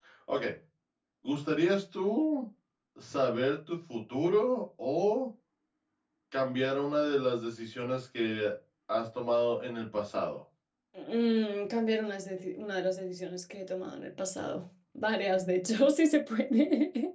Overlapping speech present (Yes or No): No